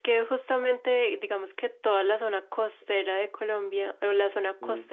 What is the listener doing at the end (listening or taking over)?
listening